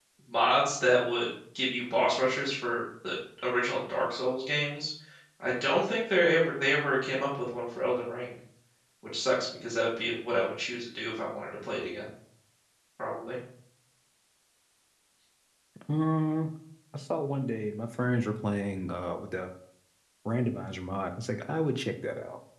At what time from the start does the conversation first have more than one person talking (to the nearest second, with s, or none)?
none